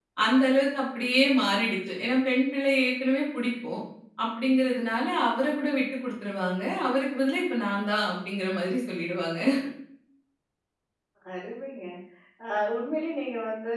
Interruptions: none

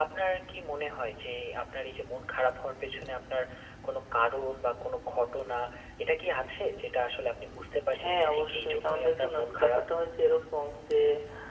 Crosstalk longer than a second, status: present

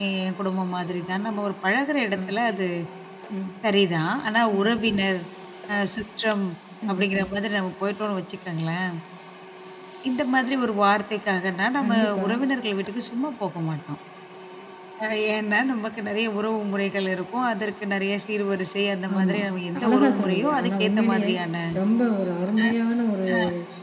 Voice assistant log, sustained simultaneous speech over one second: present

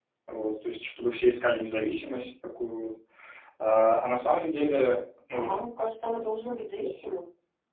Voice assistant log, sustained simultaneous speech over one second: none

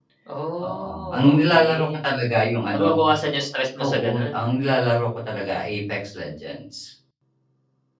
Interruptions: present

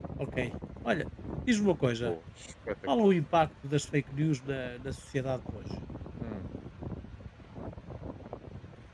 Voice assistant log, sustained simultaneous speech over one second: none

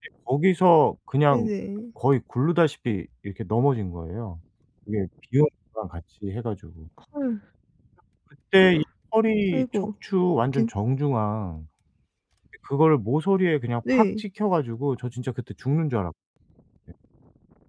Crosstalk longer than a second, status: none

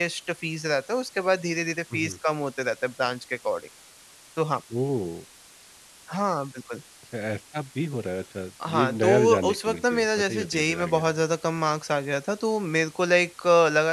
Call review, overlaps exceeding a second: present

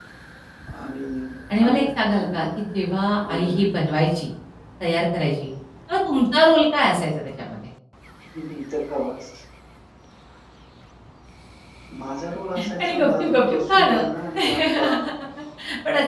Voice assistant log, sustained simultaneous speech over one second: present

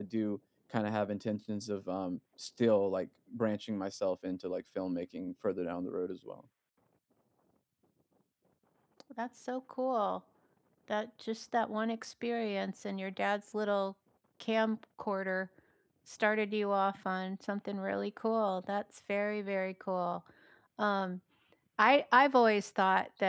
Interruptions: none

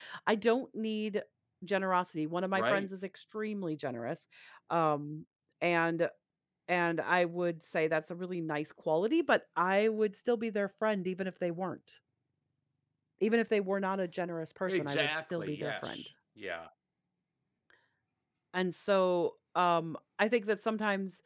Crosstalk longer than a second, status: present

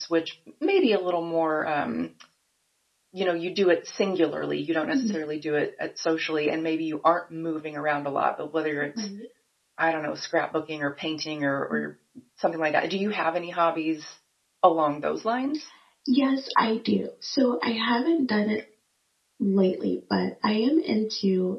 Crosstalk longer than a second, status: none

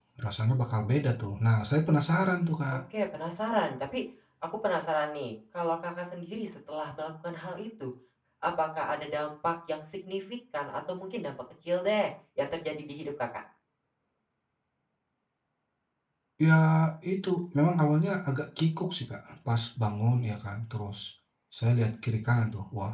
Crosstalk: none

